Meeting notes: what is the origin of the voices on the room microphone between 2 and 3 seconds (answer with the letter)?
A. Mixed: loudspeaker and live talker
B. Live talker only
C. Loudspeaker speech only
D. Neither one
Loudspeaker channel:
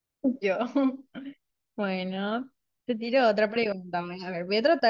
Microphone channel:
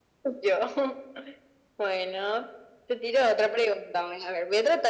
C